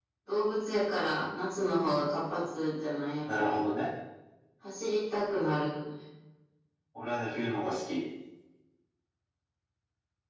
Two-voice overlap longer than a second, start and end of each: none

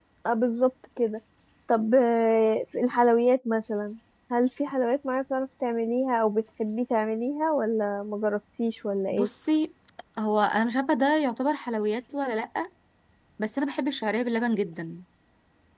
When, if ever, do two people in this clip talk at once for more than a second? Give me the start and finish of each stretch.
none

